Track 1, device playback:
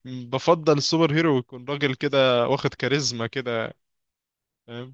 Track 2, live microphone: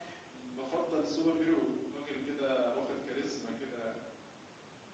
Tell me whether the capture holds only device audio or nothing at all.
Yes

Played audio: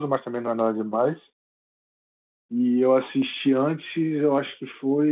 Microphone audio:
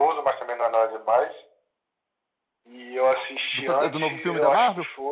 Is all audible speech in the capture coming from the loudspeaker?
No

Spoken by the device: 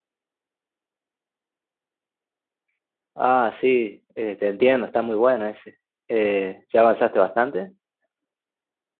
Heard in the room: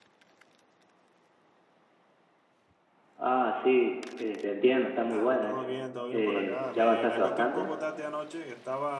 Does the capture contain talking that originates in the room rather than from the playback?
Yes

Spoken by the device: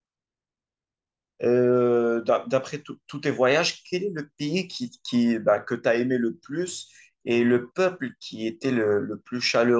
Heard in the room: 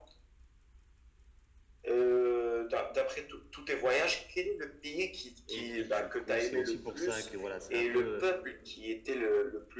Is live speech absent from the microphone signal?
No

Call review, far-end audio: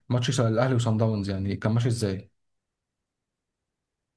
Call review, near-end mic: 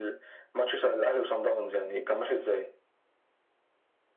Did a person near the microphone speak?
No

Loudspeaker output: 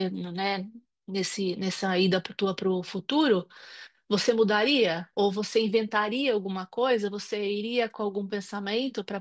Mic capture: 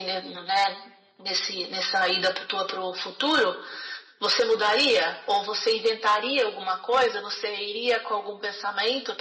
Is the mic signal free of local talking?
Yes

